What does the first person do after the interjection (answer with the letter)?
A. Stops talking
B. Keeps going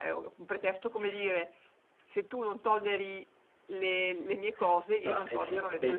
A